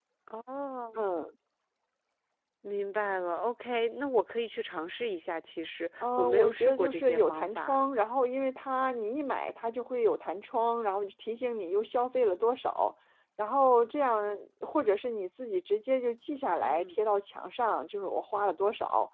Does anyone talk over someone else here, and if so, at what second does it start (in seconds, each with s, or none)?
6.0 s